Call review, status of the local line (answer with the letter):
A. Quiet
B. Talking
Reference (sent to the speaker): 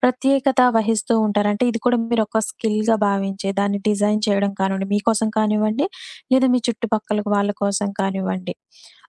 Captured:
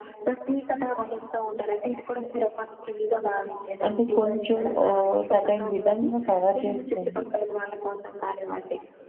B